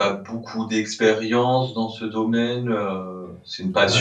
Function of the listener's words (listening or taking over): listening